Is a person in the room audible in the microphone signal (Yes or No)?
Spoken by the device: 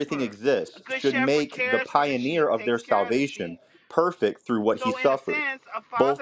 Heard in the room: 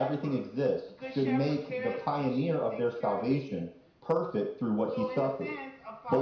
No